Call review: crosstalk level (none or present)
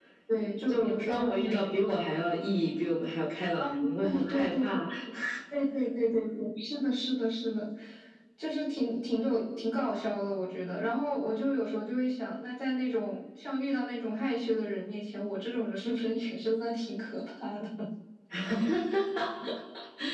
present